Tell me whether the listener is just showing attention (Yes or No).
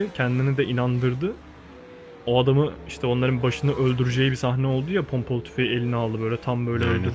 Yes